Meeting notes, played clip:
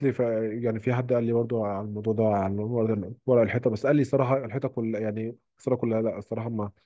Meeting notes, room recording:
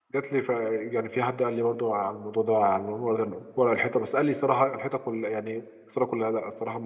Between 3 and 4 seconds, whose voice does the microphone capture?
echo only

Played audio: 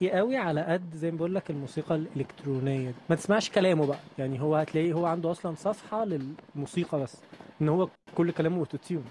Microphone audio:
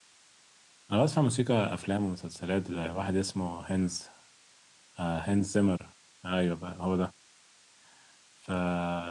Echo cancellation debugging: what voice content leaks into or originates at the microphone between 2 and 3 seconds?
user only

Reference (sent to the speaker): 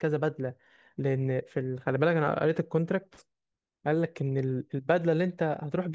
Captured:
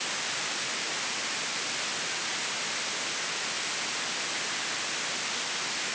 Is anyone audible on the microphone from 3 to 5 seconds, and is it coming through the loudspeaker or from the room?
neither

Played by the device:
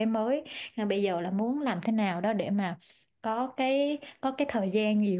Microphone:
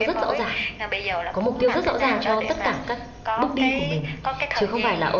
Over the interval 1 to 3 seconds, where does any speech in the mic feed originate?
both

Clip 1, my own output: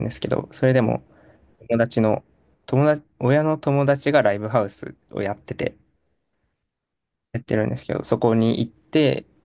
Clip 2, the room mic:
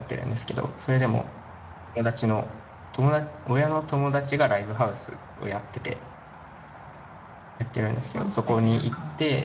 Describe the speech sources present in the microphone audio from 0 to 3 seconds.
echo only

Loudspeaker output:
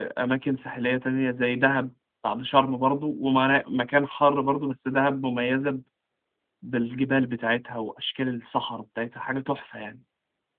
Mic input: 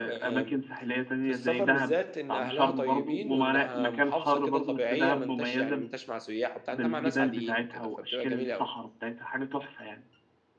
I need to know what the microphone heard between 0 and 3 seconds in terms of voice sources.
both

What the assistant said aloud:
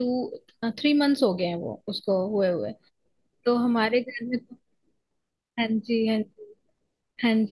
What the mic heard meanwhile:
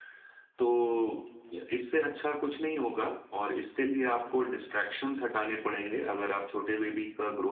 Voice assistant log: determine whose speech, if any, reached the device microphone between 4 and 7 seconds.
user only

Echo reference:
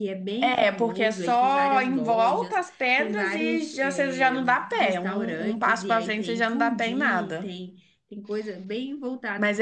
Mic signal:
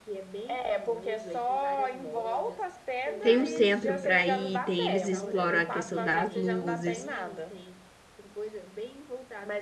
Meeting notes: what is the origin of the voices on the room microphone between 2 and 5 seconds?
both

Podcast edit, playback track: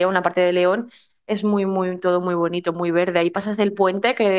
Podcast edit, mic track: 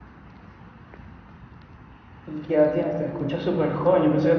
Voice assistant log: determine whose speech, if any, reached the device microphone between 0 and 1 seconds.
neither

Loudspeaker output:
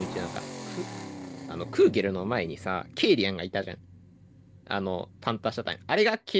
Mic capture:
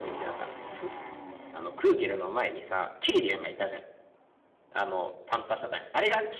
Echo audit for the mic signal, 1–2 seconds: echo only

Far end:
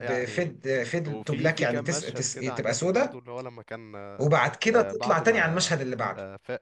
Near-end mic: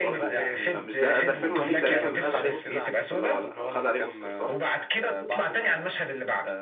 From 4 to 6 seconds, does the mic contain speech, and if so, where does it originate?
both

